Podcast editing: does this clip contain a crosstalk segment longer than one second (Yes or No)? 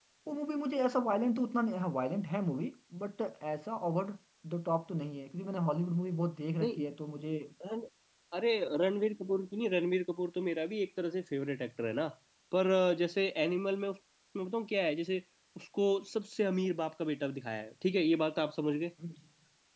No